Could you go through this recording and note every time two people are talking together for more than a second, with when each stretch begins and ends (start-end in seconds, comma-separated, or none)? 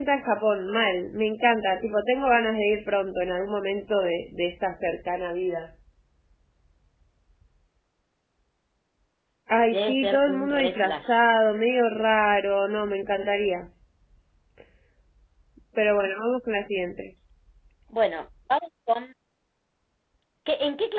9.7-11.1